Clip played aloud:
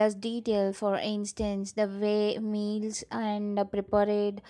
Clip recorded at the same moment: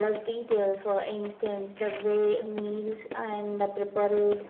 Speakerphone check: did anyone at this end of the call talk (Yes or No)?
No